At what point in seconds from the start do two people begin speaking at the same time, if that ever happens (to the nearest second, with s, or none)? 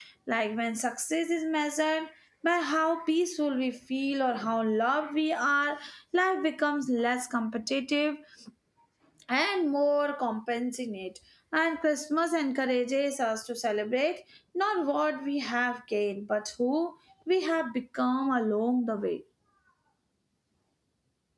none